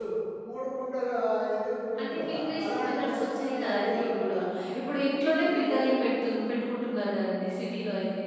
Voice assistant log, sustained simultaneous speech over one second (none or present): present